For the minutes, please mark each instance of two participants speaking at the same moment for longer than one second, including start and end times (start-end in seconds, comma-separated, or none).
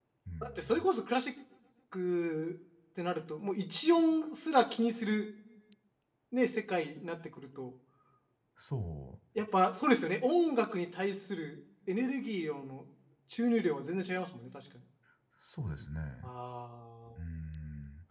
none